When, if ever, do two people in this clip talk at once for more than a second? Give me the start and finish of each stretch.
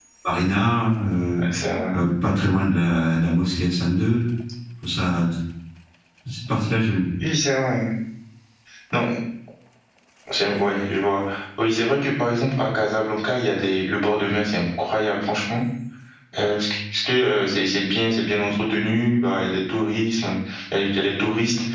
none

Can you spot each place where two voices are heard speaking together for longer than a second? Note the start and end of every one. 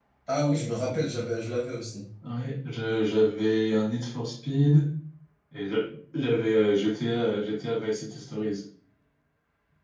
none

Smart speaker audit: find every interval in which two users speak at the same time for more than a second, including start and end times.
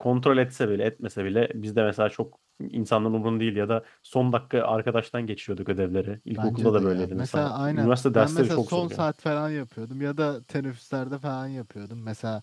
6.4-9.1

